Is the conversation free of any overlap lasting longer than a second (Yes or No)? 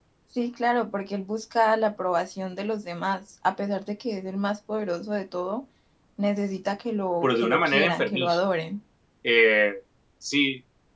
No